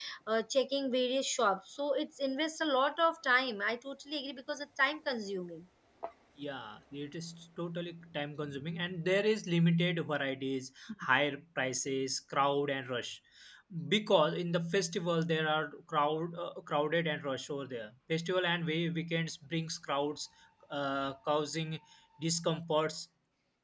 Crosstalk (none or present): none